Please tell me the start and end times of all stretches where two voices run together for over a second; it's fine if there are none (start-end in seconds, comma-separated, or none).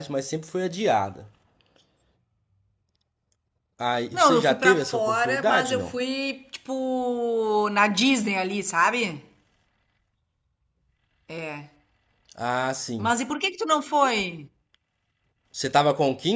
4.1-6.0